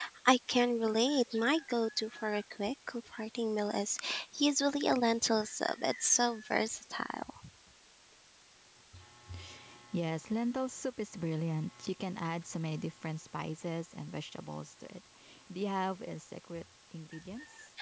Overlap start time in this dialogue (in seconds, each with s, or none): none